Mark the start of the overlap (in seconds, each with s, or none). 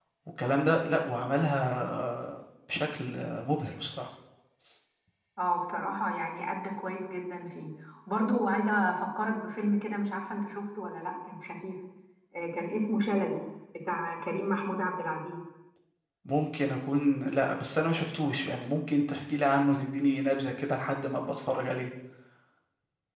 none